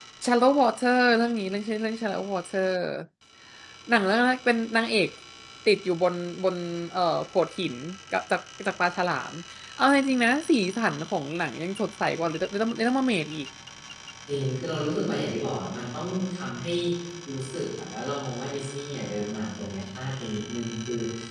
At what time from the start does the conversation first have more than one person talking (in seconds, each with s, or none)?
none